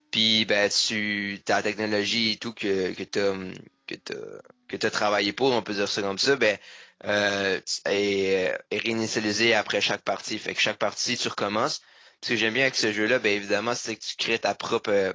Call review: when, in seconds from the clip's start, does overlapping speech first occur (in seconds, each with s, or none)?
none